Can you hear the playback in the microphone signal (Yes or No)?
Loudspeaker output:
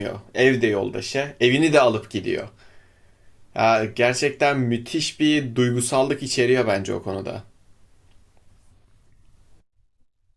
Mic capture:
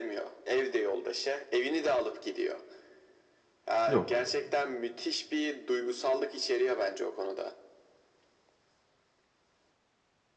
Yes